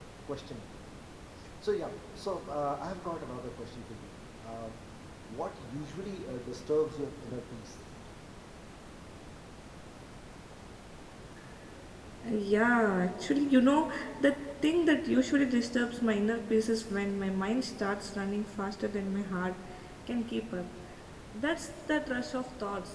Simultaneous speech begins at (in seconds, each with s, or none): none